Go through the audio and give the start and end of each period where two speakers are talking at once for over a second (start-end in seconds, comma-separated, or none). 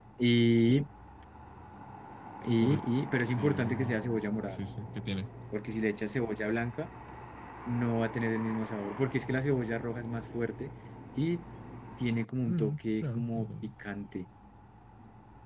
12.5-13.7